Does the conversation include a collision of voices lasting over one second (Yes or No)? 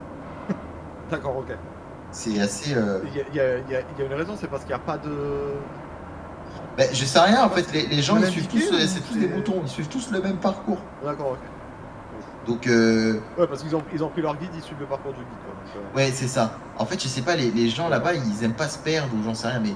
Yes